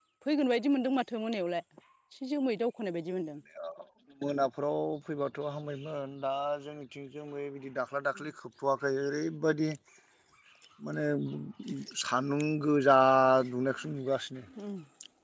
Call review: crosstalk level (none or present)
none